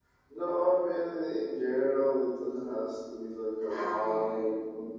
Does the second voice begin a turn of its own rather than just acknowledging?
No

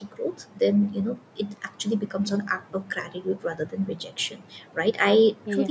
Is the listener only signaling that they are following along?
Yes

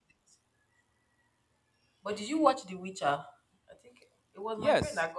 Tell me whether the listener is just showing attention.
No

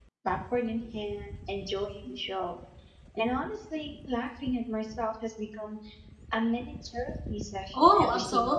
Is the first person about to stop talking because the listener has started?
Yes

